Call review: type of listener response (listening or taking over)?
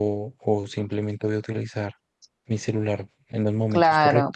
taking over